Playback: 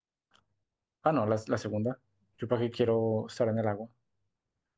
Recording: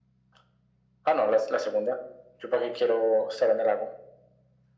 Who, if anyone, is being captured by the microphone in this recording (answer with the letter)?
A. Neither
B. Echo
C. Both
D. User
B